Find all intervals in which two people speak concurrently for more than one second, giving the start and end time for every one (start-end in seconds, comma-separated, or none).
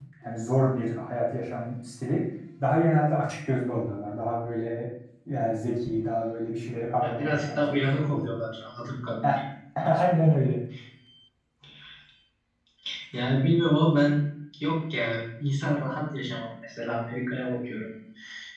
7.0-8.4